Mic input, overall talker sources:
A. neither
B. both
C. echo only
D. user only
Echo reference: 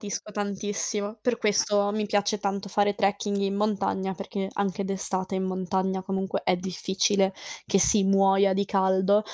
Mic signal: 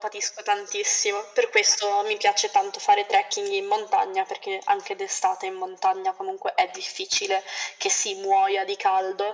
C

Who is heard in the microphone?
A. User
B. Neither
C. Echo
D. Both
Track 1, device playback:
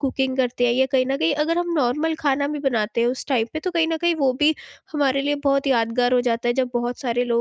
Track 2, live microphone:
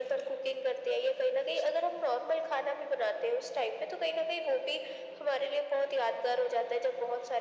C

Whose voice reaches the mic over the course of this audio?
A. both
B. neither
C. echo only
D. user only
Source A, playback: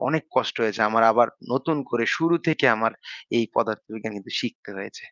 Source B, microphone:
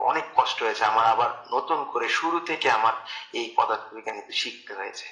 C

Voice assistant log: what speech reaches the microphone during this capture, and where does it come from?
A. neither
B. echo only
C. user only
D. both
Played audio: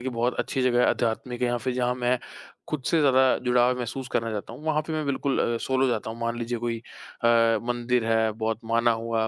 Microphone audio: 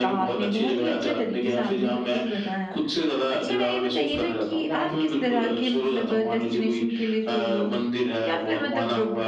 D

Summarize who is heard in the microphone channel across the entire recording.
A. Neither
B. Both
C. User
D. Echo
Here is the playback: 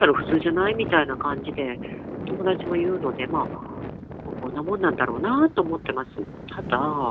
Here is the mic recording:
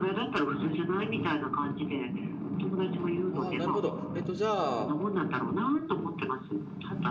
B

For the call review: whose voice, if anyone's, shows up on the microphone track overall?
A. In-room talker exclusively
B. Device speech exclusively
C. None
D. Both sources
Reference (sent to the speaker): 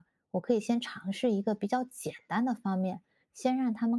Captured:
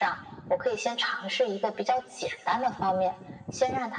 B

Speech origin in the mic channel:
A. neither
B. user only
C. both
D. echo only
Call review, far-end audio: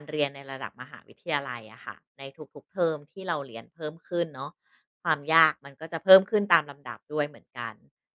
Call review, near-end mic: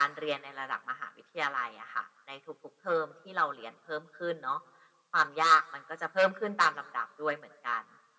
D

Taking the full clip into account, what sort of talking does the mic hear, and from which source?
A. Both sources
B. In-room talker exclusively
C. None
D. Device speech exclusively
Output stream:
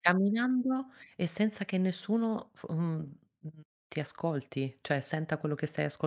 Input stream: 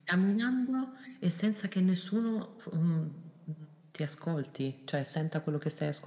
D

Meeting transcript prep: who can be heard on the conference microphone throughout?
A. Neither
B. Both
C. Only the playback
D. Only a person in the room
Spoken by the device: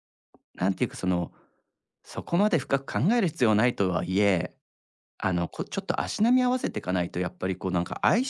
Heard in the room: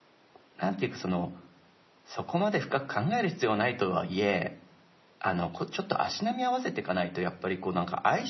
C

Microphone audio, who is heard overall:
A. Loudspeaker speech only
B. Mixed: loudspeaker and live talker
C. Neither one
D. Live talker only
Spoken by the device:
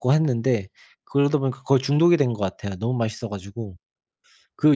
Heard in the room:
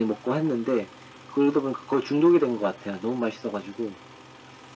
A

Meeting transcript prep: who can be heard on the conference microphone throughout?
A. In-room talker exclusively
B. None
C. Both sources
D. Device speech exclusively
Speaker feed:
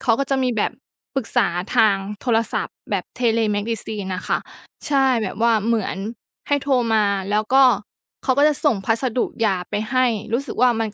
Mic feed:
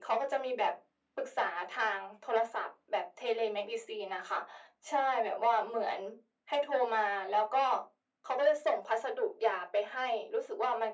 D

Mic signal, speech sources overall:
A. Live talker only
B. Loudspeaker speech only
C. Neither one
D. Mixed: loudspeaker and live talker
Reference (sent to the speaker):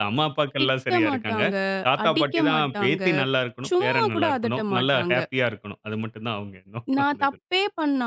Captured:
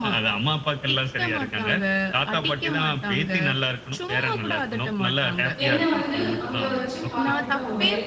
D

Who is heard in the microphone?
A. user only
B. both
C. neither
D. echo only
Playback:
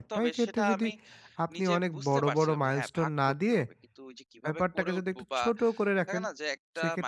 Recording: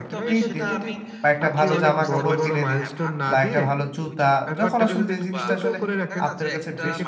B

